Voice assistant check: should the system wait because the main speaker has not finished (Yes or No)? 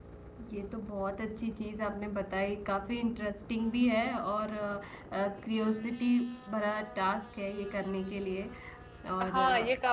No